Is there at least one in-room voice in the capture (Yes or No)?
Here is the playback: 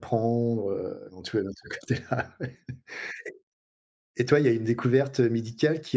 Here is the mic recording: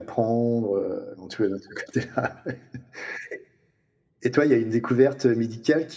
No